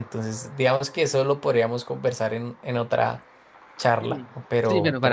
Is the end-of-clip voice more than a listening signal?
Yes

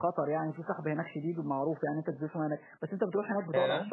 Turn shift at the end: No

